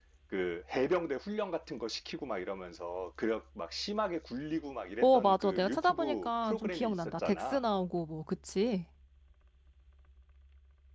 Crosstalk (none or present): present